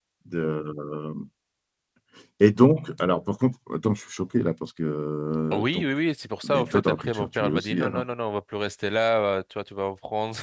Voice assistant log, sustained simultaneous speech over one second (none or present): present